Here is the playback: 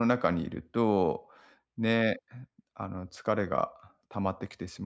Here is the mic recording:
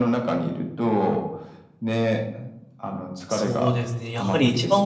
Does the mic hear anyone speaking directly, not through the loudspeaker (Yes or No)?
Yes